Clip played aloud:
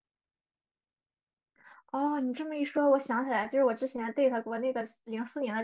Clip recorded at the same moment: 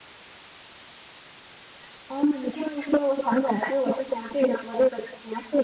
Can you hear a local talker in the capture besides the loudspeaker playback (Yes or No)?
No